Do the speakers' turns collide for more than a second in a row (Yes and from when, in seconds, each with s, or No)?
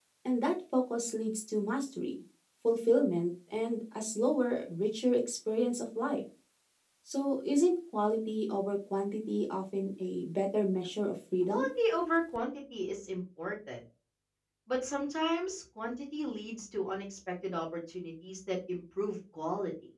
No